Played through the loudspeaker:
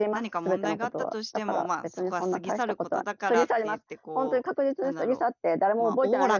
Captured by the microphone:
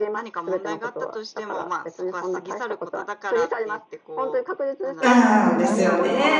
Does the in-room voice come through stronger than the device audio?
Yes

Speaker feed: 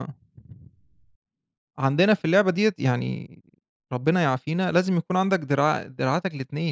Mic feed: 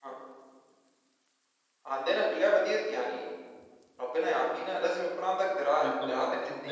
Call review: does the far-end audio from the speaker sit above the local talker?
Yes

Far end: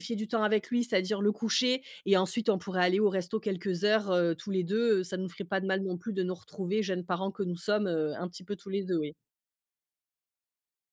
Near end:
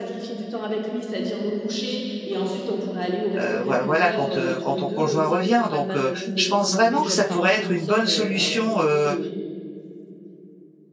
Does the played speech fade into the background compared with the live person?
Yes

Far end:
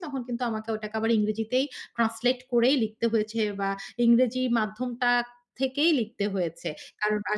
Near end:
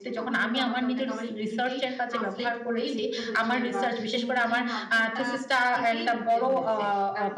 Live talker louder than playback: Yes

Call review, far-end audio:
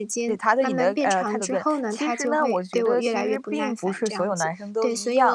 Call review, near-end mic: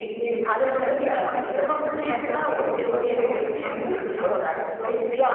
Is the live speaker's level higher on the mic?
No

